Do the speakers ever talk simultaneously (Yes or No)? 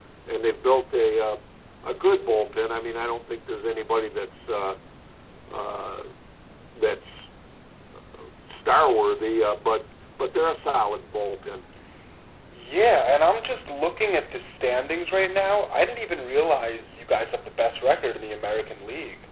No